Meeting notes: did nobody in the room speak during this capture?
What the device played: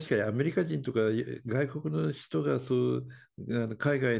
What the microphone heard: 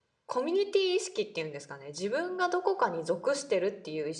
No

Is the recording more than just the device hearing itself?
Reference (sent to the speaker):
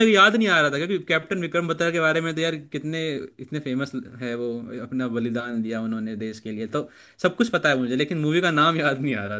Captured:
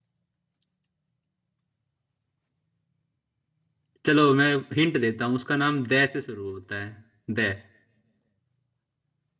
Yes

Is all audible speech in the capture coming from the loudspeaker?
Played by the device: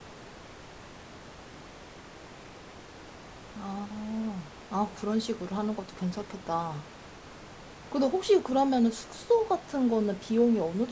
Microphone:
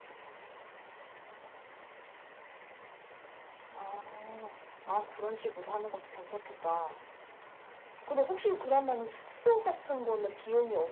Yes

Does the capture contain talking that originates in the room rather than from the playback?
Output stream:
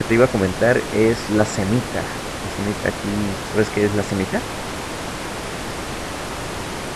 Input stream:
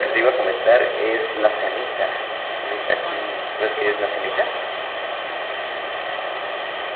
Yes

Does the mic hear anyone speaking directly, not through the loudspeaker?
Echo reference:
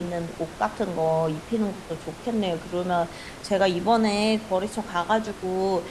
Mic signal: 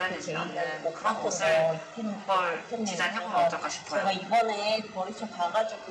Yes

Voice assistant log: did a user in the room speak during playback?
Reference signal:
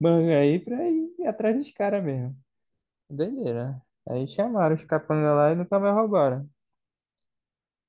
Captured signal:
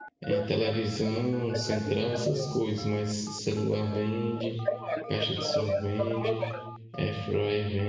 Yes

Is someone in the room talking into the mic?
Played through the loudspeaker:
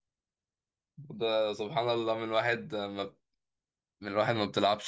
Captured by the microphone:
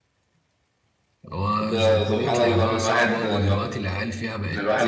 Yes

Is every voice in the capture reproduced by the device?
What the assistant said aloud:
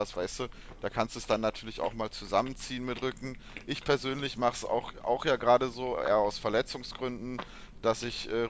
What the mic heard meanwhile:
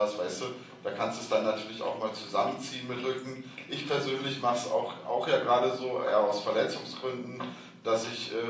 Yes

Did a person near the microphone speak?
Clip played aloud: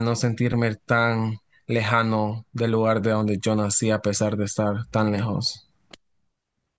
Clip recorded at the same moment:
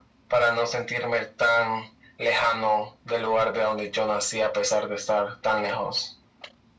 No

